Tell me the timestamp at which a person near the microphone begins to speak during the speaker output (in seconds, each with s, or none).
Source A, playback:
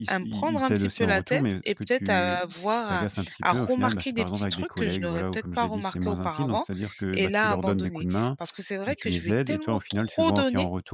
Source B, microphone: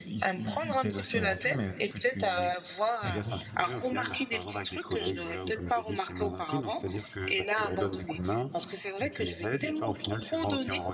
3.0 s